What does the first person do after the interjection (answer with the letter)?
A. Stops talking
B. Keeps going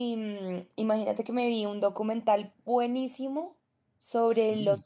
B